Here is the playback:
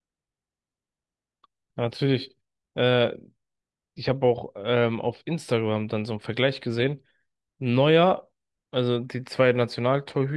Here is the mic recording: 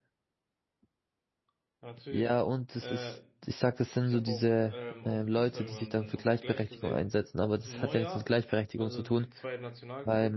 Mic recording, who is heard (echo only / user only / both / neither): both